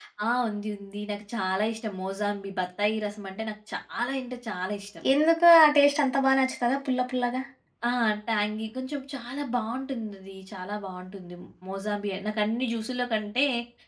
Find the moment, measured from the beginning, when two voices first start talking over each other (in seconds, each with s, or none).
none